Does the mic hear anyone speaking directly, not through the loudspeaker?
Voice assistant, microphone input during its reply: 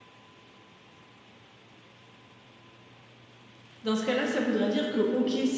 Yes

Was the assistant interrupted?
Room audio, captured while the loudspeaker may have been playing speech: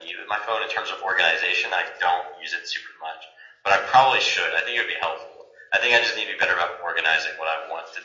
No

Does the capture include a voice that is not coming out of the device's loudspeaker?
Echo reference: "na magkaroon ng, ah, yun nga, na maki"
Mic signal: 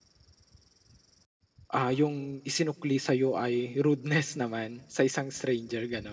Yes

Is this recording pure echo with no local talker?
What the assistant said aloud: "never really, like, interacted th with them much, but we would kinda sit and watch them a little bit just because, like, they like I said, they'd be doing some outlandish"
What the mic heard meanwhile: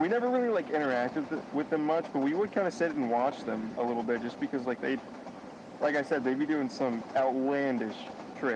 Yes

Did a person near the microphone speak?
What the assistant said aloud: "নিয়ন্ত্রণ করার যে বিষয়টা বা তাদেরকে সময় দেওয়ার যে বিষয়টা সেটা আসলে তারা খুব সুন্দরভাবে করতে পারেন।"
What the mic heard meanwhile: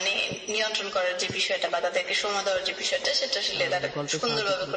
Yes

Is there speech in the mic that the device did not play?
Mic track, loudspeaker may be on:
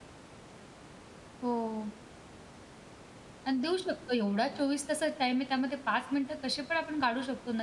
Yes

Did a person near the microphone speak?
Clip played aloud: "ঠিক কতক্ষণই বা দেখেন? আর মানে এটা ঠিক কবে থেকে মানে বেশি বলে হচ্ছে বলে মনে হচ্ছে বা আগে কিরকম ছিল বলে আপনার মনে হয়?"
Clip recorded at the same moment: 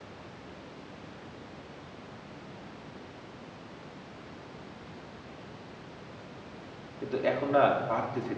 Yes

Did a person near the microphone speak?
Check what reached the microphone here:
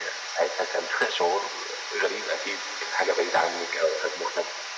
No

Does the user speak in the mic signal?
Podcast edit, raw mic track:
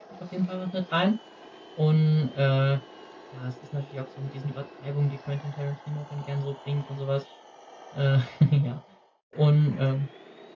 Yes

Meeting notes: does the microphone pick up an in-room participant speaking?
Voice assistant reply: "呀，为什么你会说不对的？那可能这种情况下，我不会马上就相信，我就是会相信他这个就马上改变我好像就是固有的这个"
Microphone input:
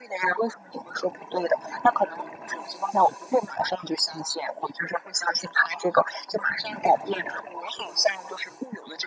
No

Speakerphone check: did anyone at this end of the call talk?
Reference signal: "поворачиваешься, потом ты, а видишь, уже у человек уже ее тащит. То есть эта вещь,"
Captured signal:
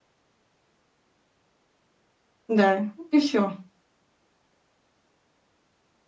Yes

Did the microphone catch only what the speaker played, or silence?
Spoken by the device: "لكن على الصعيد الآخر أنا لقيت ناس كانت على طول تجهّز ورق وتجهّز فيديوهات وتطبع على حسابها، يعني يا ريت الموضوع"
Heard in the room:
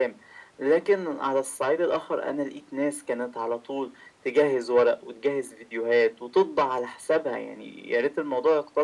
Yes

